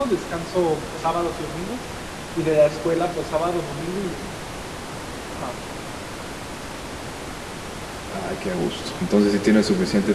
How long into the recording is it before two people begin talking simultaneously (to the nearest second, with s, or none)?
none